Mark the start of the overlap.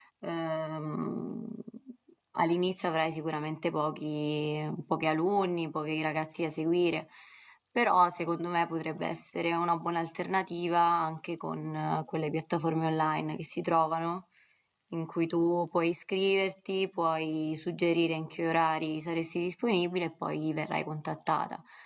none

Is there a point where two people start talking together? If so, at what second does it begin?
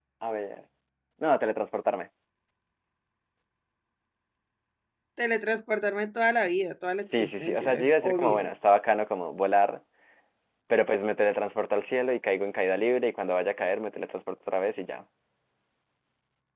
7.0 s

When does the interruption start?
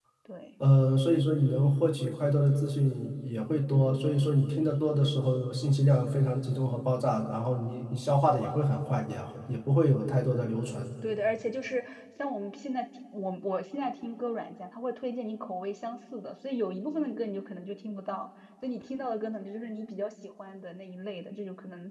none

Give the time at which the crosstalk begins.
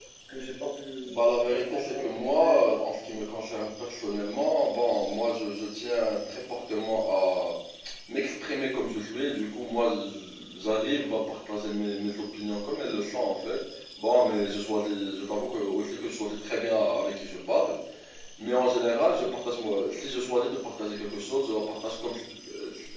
1.1 s

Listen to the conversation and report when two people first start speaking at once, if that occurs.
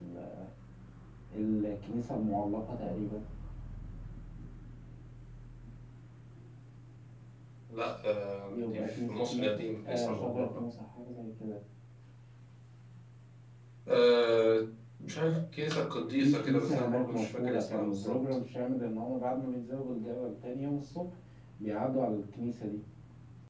8.5 s

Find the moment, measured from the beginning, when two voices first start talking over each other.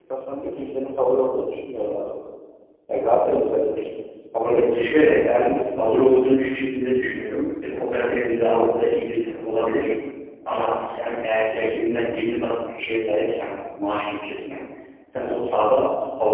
4.5 s

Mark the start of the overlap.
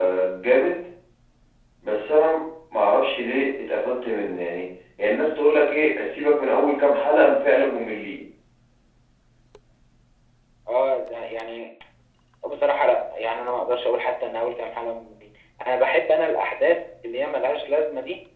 none

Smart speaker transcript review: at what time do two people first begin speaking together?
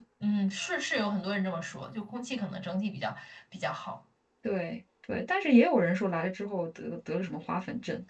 none

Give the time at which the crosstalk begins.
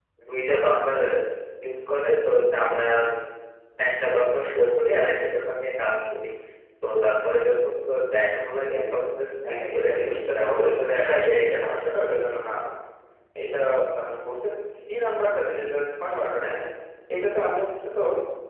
9.4 s

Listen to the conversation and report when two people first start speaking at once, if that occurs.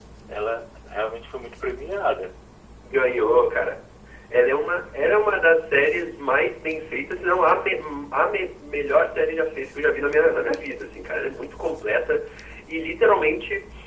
none

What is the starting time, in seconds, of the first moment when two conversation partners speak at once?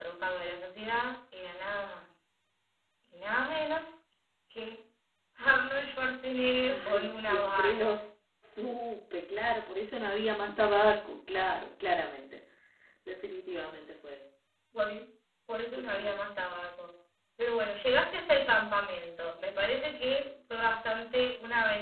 6.7 s

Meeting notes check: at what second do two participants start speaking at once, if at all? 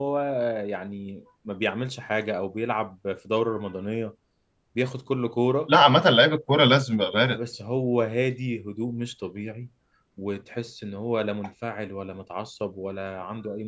none

